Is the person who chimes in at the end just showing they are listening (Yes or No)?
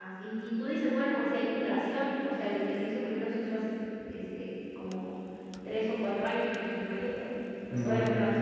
Yes